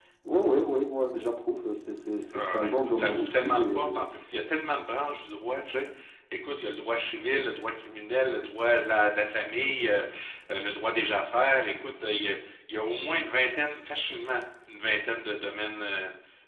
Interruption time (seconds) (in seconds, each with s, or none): 2.3 s